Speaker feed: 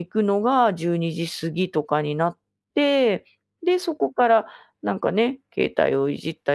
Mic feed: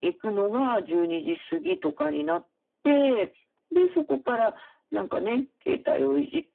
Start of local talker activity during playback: none

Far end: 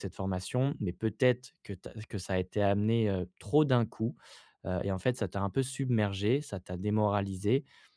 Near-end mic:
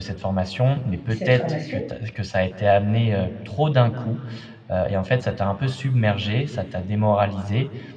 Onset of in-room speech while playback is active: 1 s

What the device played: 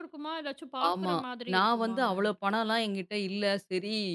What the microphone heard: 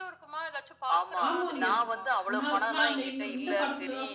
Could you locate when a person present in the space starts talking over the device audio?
1 s

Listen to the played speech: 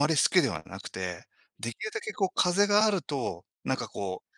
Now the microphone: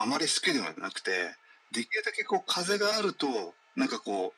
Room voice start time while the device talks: none

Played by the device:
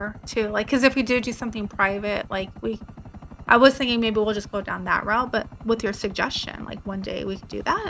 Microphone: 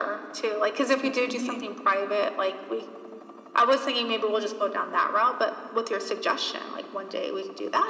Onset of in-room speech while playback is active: 1 s

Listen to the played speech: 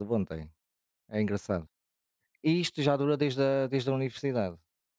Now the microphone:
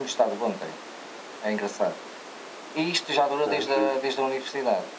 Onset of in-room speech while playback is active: 3 s

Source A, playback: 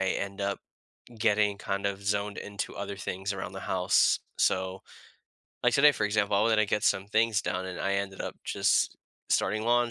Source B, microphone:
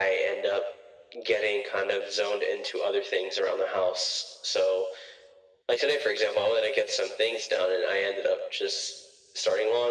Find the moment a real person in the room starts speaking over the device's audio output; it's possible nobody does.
none

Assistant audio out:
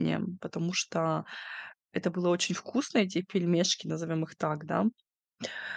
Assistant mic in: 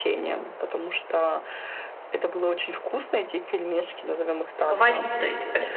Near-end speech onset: 5 s

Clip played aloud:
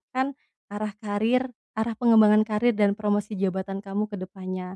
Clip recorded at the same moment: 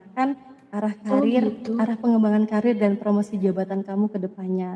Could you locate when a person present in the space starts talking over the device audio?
1 s

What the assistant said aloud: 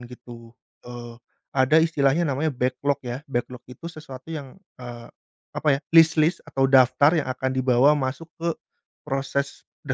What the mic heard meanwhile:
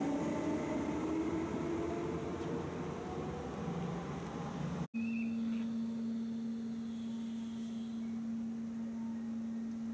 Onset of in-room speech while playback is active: none

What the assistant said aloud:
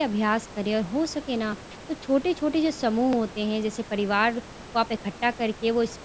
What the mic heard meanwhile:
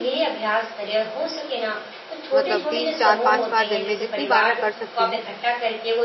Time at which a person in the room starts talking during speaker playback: 2 s

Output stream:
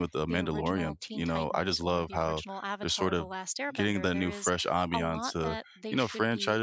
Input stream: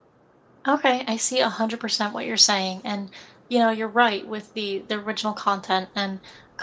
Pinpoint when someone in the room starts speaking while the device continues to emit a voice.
1 s

